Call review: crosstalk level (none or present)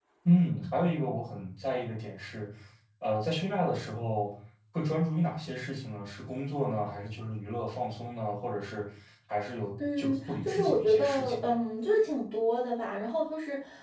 present